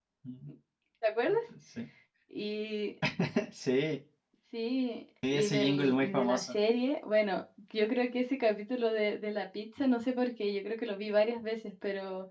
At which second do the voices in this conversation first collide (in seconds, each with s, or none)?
5.3 s